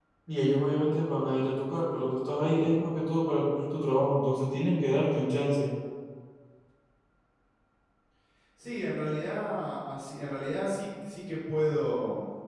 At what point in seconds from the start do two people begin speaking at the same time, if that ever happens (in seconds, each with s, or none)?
none